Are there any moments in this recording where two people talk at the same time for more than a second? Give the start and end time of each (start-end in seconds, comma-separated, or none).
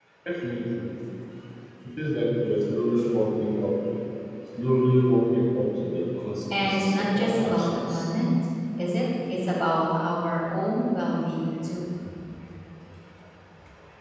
6.6-8.1